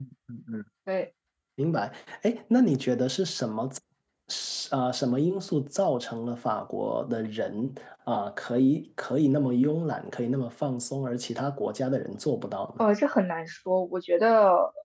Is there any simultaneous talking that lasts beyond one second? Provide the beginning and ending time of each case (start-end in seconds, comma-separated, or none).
none